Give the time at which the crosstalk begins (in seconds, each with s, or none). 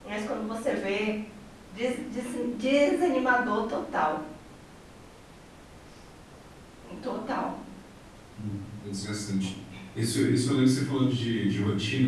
none